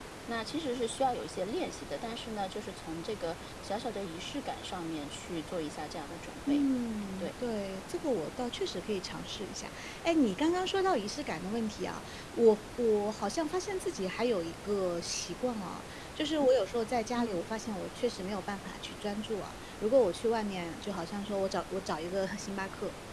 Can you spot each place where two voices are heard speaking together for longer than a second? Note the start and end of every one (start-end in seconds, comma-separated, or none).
none